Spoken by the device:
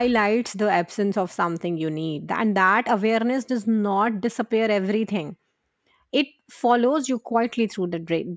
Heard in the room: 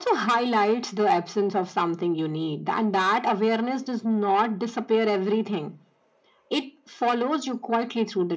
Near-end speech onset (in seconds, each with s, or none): none